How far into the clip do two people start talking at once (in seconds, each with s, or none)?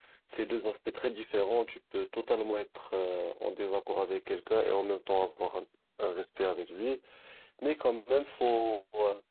none